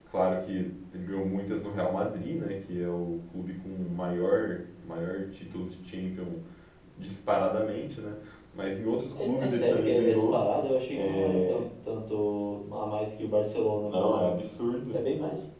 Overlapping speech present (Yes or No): Yes